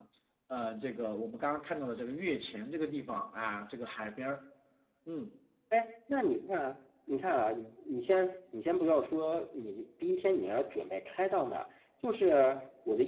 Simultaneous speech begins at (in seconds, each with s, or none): none